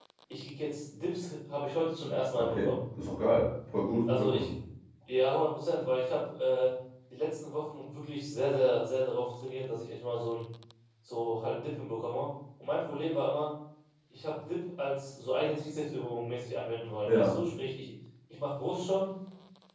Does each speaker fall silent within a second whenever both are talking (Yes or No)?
Yes